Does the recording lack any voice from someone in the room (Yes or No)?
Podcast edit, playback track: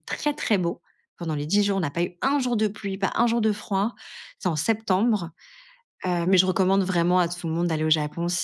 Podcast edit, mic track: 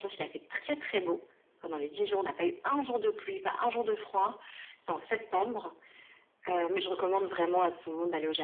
Yes